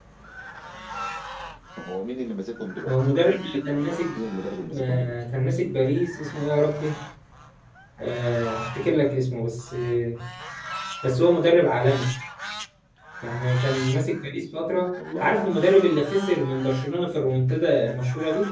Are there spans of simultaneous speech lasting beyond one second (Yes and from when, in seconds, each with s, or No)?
No